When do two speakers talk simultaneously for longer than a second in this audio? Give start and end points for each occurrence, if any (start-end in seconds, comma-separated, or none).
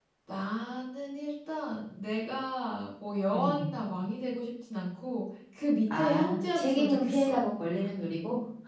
5.9-7.4